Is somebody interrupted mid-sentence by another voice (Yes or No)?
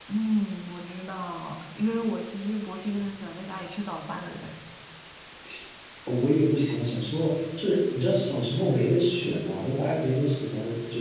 No